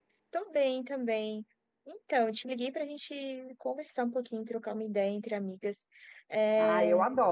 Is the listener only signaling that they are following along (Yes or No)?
No